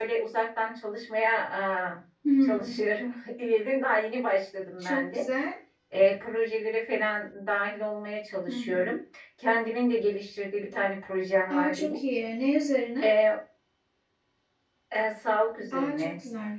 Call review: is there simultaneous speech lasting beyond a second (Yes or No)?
No